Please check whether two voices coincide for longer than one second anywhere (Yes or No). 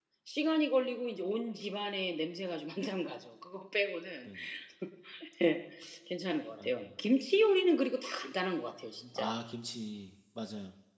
No